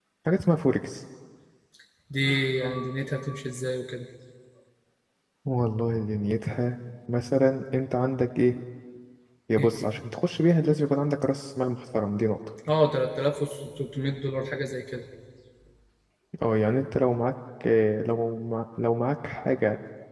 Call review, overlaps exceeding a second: none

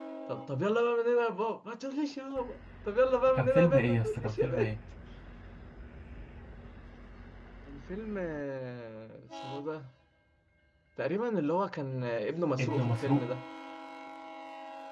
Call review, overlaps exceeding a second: present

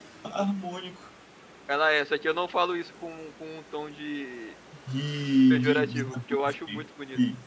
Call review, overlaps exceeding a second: present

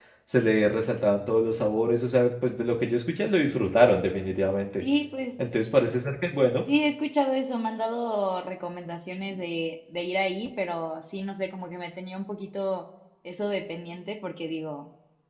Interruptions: none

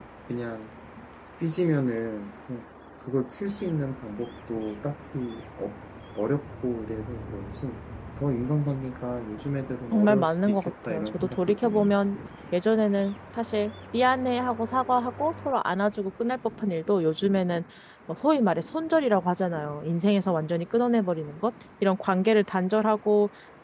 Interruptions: present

